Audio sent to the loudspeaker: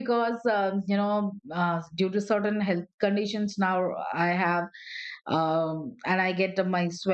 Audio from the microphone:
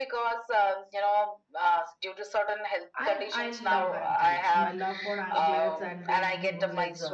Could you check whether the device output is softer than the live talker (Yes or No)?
No